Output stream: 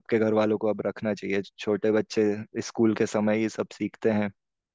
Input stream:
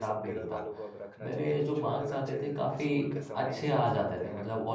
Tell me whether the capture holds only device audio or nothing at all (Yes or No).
No